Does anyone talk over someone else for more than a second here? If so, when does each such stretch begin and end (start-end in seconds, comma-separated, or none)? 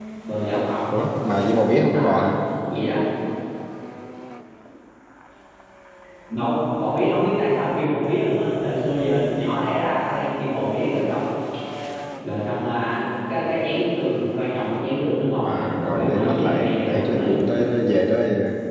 15.4-17.4